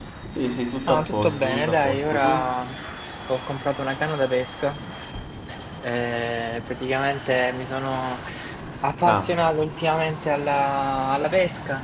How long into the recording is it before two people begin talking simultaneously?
0.8 s

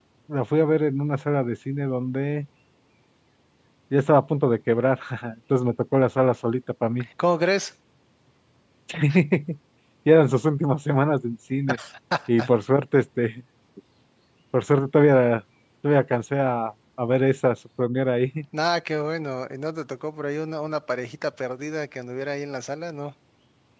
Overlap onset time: none

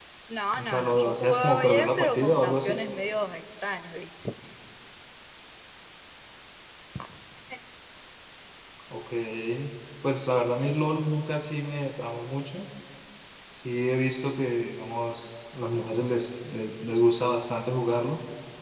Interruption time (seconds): 0.6 s

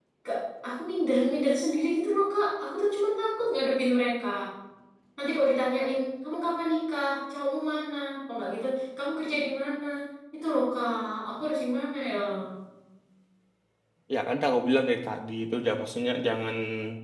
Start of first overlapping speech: none

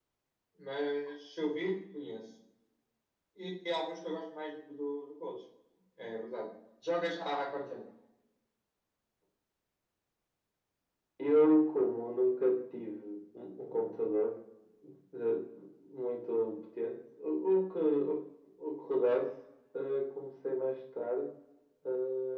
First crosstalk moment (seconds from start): none

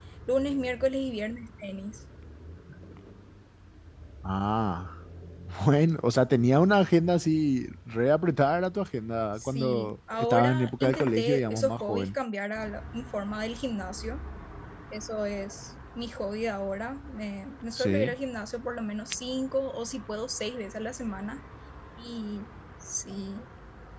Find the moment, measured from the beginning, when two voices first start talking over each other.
9.4 s

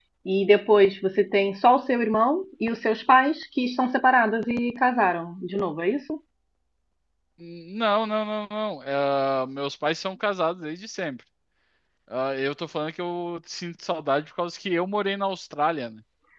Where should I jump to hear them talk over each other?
none

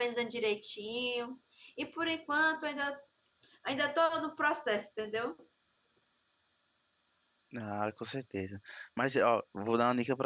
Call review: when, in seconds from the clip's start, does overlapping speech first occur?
none

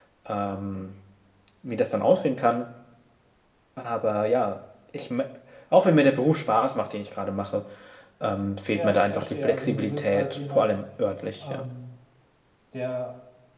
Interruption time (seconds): 8.7 s

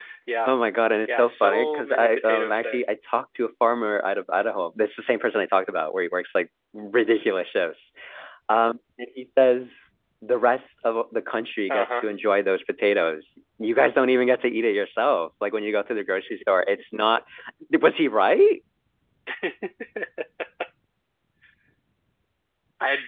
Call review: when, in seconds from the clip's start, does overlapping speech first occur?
1.1 s

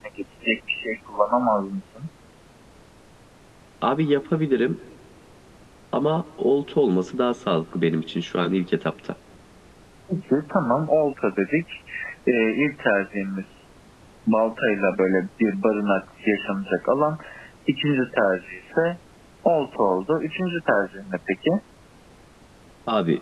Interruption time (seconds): none

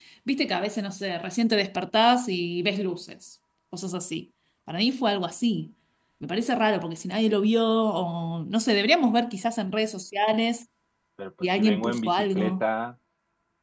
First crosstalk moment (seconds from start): 11.4 s

